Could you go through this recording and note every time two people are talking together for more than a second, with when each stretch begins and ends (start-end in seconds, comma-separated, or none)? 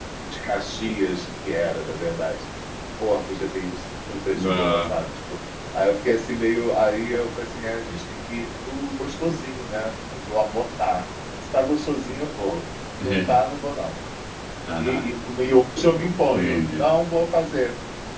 none